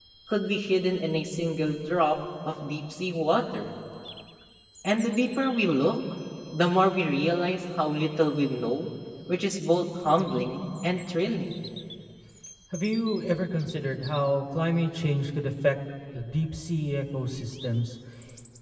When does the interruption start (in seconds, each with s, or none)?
none